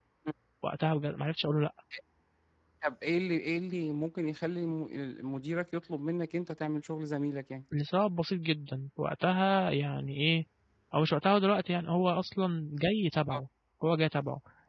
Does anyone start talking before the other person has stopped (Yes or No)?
No